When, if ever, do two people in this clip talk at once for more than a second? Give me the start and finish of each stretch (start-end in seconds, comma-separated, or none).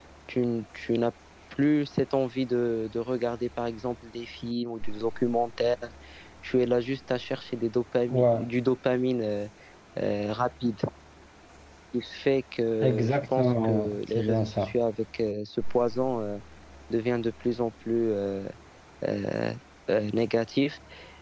12.8-14.7